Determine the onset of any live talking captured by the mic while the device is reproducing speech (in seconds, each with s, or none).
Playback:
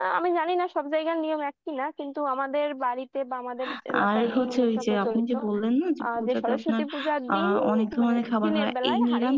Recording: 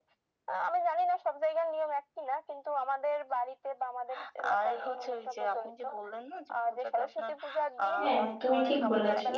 8.0 s